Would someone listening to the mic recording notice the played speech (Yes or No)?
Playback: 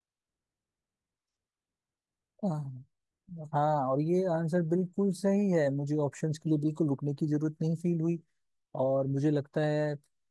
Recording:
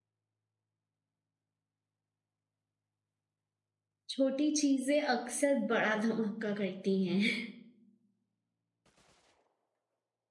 No